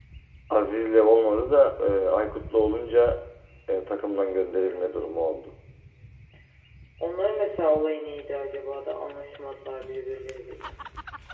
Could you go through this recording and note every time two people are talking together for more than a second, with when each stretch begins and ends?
none

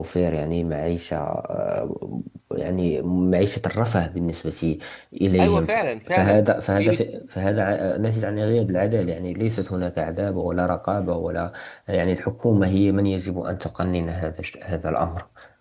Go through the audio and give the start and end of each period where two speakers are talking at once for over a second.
5.4-7.0

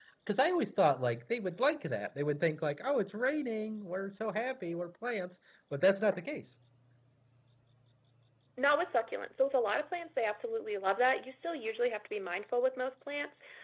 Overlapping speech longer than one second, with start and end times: none

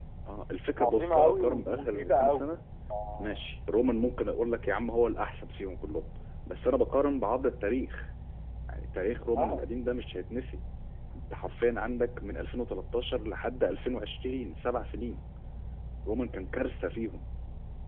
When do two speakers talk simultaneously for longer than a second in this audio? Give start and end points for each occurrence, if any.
0.8-2.5

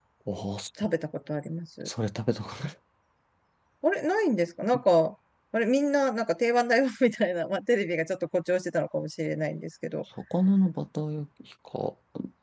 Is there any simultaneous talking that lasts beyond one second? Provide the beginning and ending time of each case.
none

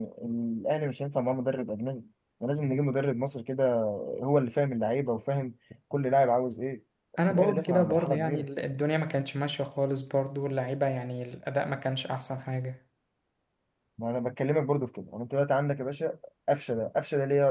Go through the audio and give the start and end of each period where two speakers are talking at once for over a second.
7.2-8.4

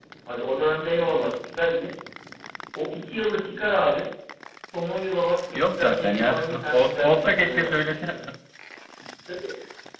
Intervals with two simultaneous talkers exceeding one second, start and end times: 5.5-8.2

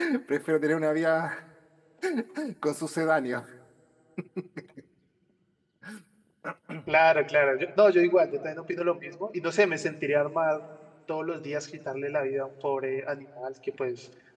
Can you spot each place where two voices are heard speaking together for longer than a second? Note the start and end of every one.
none

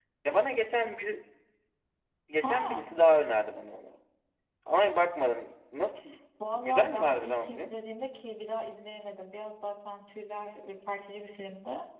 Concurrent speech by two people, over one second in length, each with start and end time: 6.5-7.7

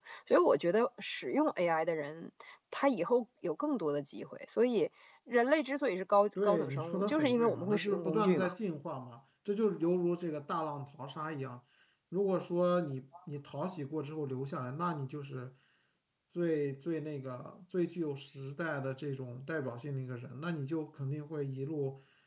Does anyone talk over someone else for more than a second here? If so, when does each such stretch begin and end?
6.4-8.5

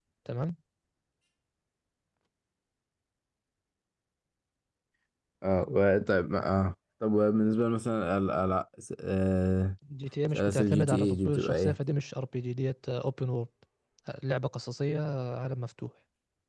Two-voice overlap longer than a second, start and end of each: 10.3-11.8

